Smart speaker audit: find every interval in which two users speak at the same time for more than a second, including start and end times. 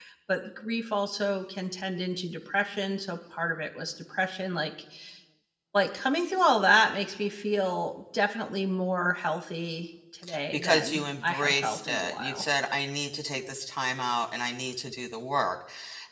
10.5-12.4

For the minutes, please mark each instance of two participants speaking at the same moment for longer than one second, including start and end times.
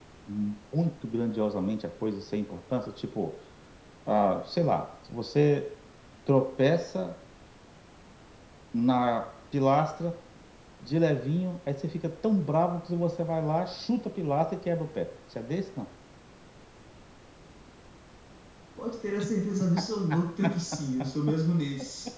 none

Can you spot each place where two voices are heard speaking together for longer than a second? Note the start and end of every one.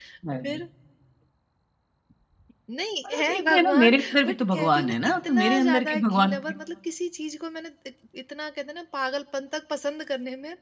3.1-6.5

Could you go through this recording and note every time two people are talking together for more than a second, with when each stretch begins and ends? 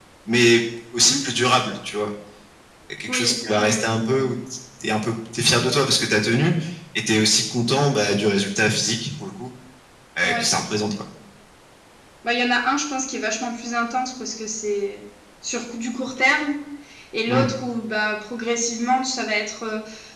3.1-4.3

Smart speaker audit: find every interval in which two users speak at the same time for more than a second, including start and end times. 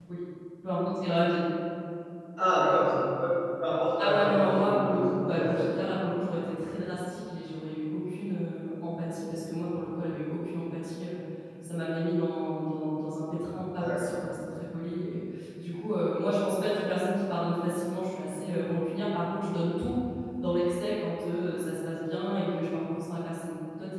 4.0-5.6

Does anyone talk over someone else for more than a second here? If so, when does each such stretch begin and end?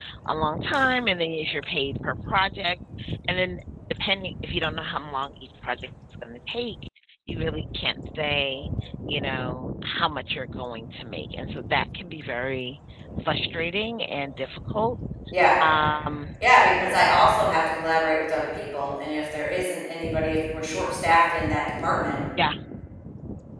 none

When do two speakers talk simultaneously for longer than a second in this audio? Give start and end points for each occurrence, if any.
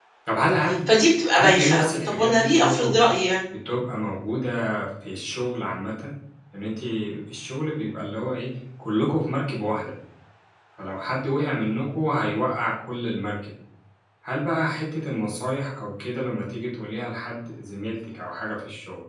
1.4-3.0

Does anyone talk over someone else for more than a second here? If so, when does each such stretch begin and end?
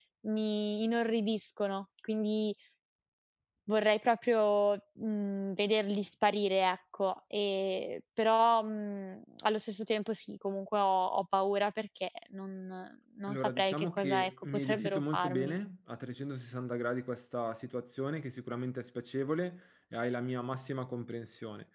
13.3-15.5

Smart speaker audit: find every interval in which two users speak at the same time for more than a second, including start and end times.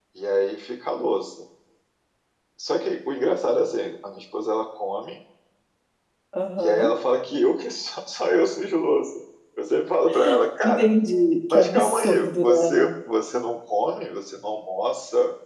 11.5-12.9

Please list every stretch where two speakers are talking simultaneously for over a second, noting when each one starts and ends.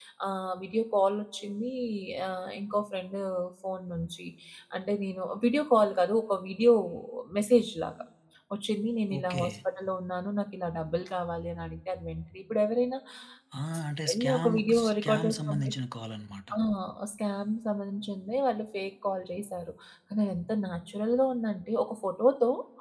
14.1-15.7

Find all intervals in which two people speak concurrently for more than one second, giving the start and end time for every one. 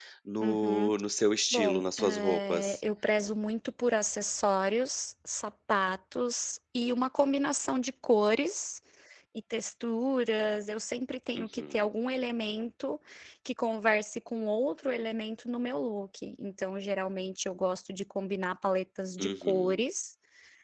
1.5-2.8

